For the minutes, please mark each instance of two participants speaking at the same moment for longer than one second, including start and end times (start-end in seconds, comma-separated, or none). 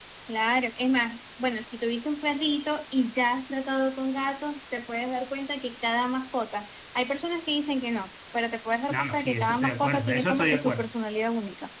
8.9-10.9